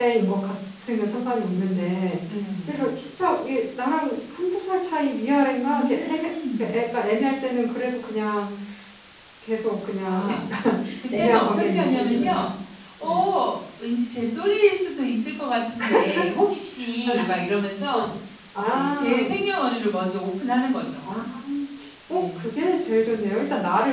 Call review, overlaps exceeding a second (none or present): present